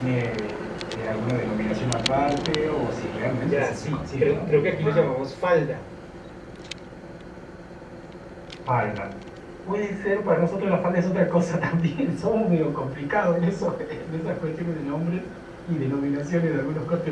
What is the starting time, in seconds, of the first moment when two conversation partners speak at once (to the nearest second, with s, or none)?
3 s